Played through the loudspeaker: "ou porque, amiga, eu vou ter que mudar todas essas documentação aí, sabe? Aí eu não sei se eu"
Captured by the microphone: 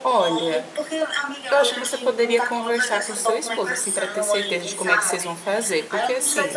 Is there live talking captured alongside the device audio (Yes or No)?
Yes